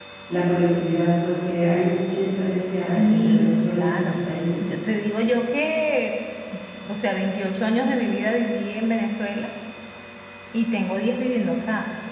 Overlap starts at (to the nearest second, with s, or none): 3 s